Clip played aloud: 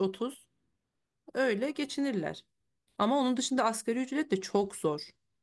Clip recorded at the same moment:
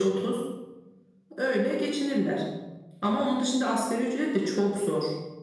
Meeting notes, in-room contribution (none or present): none